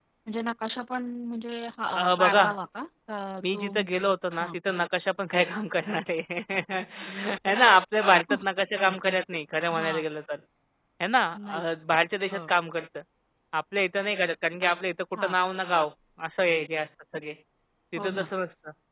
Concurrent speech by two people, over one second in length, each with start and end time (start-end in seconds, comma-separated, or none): none